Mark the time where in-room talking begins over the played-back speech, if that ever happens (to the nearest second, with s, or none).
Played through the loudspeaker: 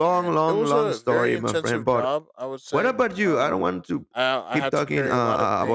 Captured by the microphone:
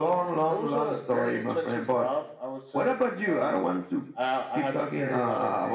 none